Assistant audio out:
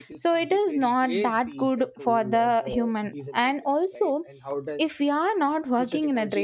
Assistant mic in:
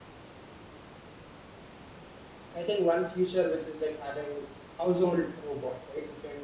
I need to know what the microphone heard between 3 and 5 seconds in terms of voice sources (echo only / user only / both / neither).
user only